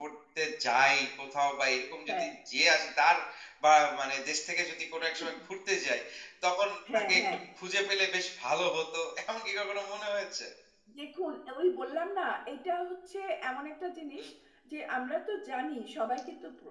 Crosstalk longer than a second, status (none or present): none